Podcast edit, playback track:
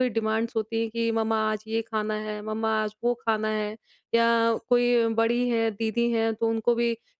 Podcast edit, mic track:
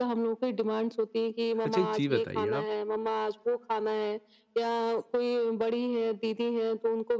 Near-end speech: present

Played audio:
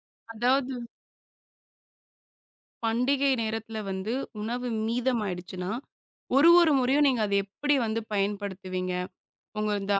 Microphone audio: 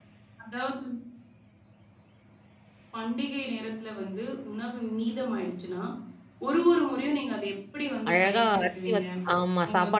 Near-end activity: present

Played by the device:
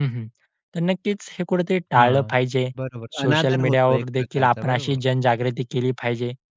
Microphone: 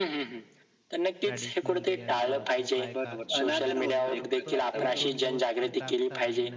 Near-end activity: present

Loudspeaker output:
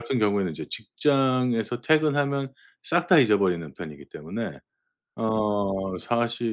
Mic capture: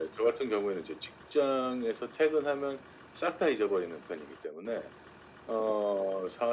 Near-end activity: none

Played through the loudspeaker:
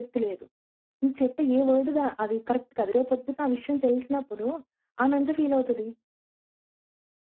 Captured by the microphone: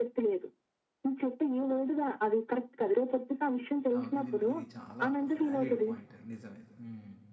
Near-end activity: present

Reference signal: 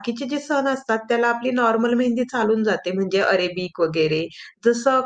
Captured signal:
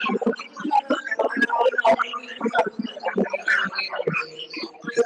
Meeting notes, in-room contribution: none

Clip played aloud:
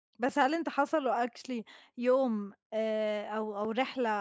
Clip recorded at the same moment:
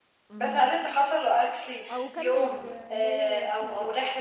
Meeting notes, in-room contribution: present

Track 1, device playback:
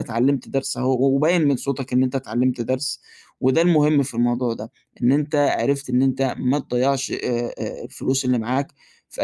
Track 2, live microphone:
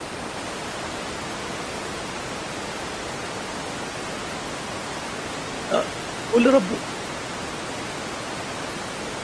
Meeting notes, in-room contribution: present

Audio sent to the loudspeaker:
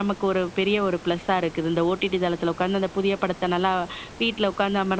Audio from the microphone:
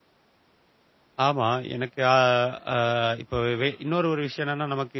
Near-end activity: present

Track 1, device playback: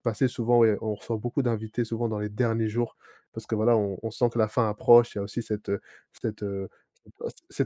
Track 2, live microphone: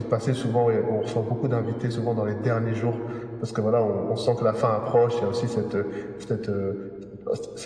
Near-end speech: none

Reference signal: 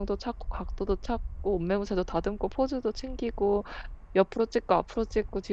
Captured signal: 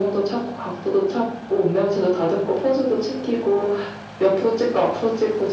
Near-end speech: none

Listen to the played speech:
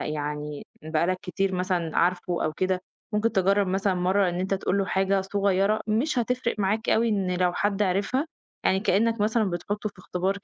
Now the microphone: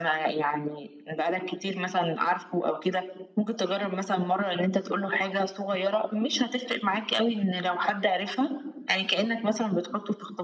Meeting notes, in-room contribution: none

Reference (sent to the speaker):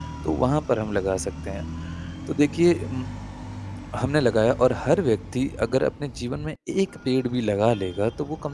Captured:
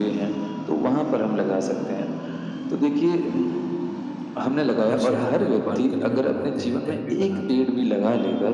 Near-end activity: present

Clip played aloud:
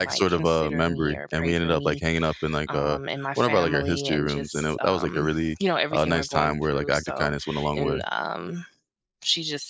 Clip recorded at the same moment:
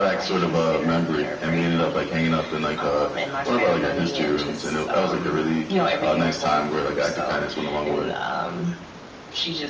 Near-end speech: none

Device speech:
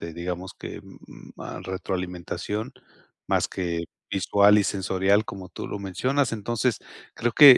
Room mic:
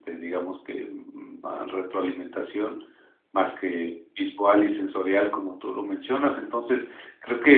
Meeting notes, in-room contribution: none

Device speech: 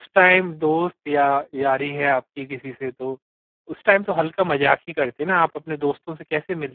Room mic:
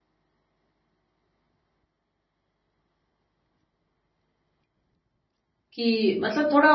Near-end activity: present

